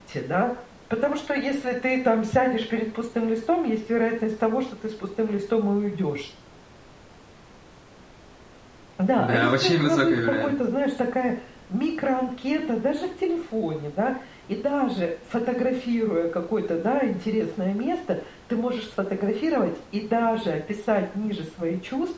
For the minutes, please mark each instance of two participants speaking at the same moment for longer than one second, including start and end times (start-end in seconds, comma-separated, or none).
9.2-10.5